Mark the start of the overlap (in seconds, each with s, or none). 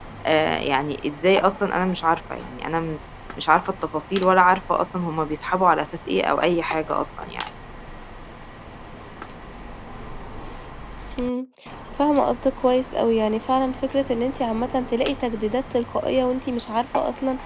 none